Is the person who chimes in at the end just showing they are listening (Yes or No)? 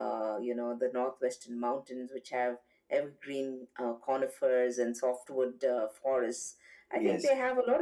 Yes